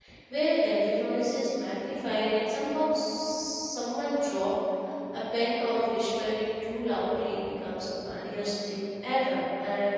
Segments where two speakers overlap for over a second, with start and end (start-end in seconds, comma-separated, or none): none